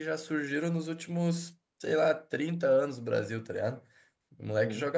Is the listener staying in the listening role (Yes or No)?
Yes